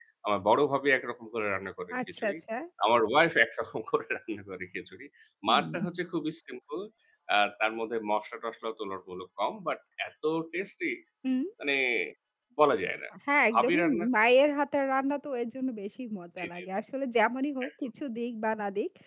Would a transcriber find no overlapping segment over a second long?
Yes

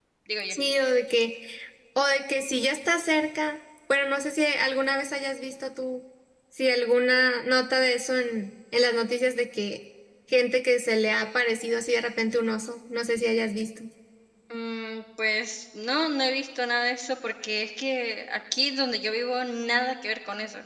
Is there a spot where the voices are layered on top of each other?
No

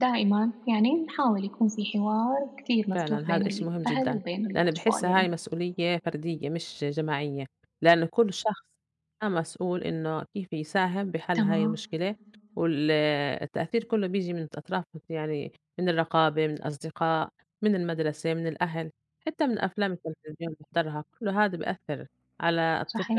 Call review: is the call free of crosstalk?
No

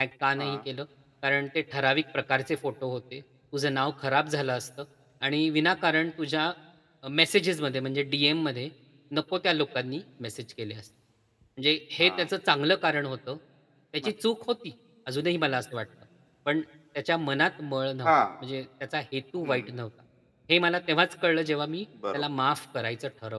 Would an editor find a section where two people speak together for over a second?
No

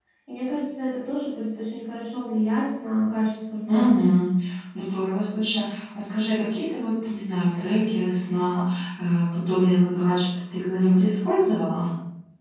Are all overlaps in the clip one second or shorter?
Yes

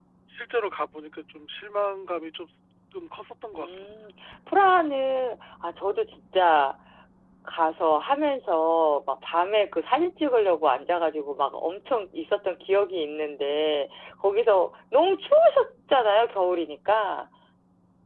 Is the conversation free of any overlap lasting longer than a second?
Yes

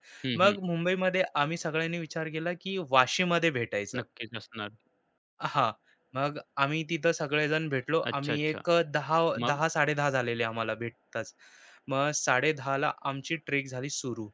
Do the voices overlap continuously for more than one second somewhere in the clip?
No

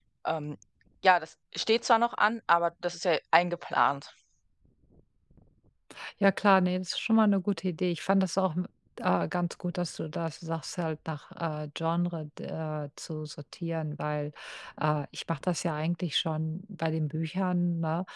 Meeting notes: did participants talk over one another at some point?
No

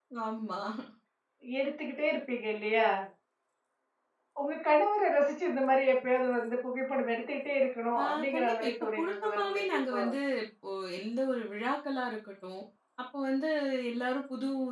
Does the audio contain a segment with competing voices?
Yes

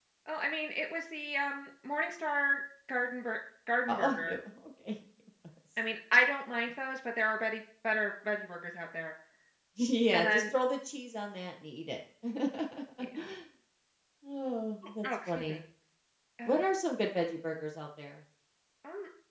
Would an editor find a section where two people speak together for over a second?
No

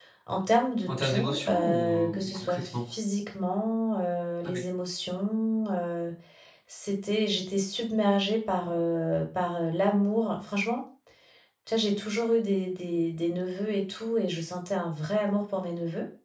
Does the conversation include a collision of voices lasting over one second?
Yes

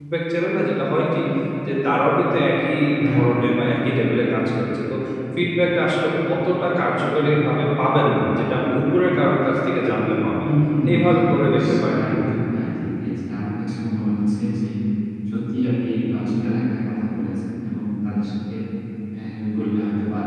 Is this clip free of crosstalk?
No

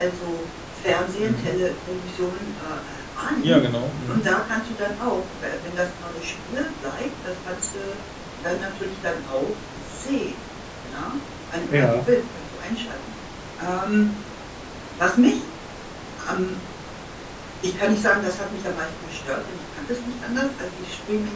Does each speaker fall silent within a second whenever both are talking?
Yes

